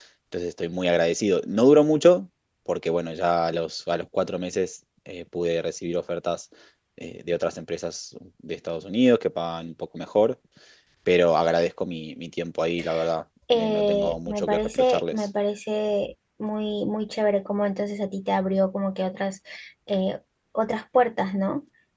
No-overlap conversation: No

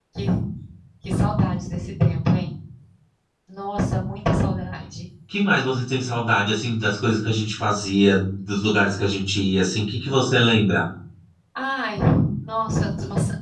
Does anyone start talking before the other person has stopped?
No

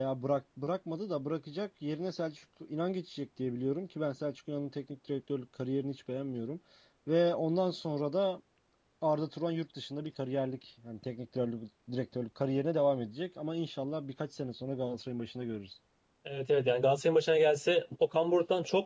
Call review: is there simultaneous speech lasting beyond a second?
No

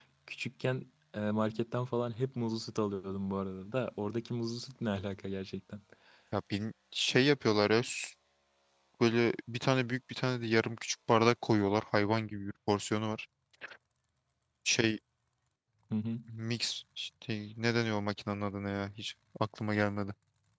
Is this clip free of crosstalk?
Yes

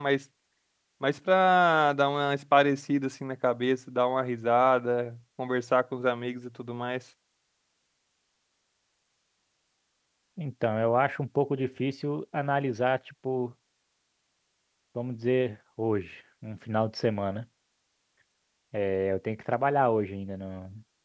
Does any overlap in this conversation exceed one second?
No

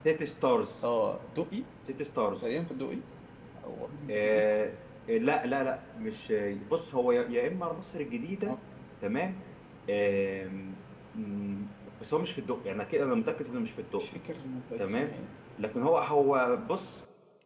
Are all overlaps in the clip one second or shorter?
Yes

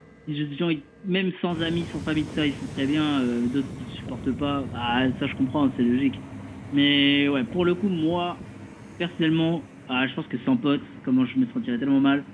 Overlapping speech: No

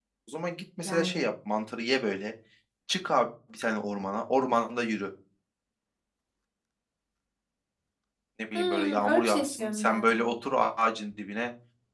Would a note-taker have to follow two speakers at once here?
Yes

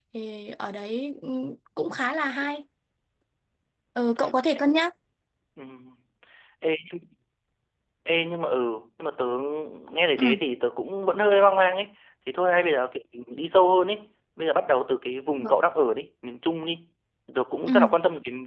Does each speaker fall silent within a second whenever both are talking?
Yes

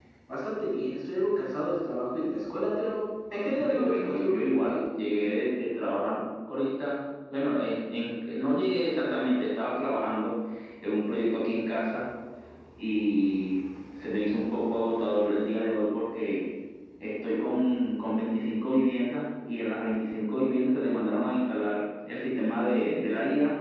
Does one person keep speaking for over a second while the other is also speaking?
Yes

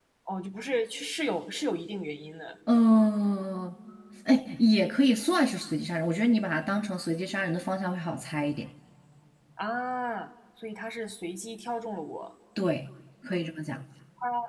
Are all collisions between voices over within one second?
Yes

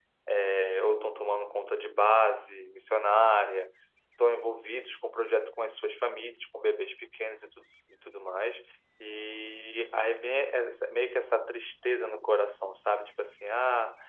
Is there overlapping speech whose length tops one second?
No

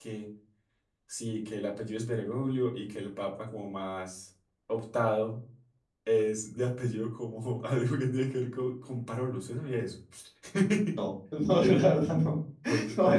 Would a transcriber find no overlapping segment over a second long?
Yes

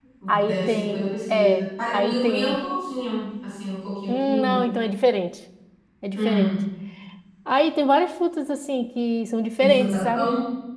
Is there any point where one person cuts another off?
Yes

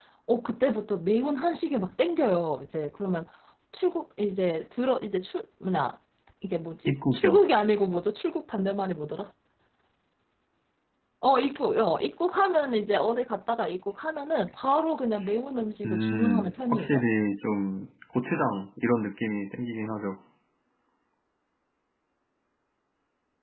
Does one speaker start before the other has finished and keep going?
Yes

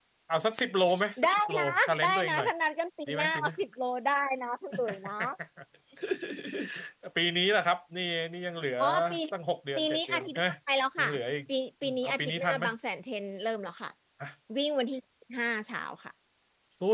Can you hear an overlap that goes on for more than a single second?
Yes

